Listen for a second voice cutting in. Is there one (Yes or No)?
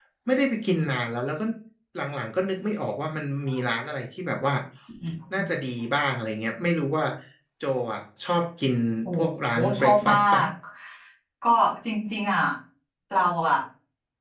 Yes